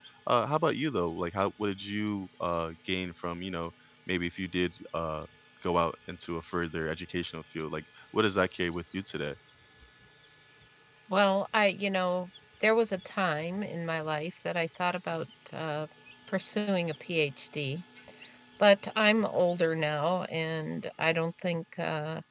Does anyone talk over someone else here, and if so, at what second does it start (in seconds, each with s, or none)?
none